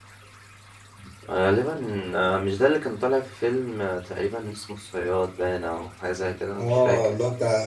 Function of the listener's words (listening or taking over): taking over